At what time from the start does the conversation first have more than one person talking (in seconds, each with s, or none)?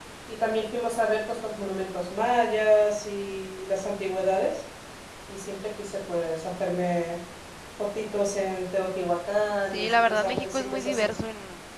9.7 s